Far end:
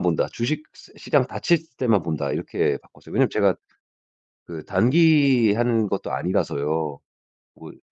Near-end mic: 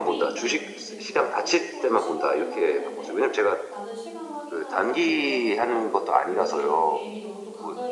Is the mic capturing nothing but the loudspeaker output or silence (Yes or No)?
No